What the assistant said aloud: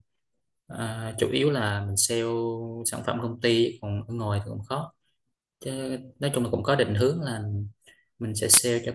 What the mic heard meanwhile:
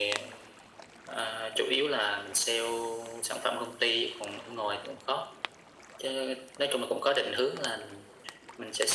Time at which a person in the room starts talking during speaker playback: none

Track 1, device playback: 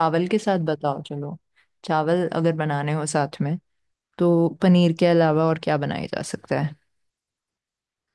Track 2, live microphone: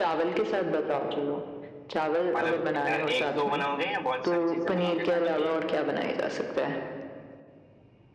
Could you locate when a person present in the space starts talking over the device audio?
2.4 s

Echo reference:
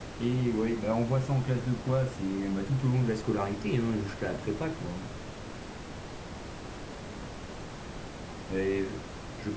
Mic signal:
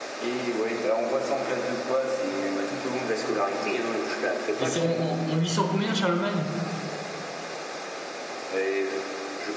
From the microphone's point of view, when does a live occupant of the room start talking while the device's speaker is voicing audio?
4.6 s

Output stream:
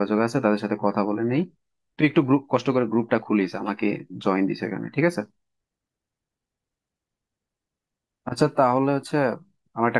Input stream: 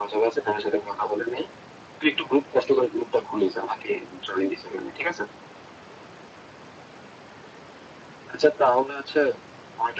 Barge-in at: none

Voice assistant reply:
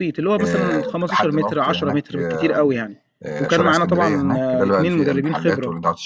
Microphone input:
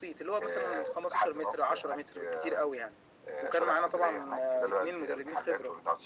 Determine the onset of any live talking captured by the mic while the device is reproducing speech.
none

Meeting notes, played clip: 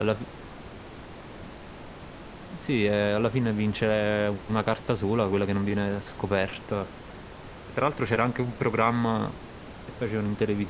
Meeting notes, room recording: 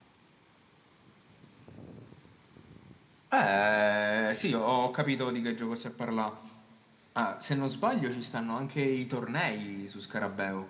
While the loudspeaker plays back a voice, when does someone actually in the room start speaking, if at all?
3.3 s

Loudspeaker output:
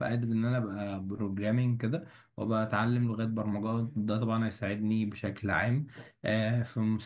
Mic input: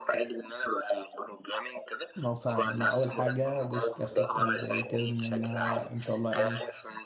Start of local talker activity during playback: 2.1 s

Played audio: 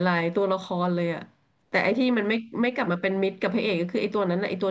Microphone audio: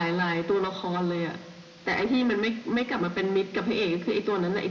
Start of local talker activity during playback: none

